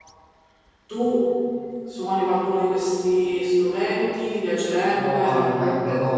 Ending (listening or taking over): taking over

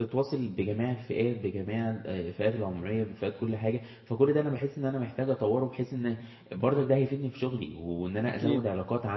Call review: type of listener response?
listening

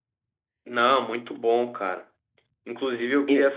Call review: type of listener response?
listening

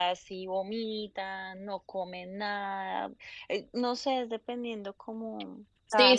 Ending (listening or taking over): taking over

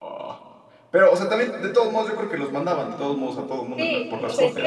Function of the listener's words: taking over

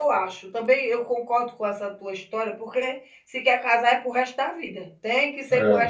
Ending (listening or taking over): taking over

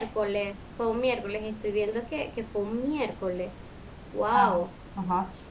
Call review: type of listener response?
taking over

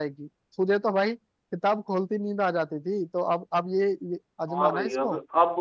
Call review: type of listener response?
taking over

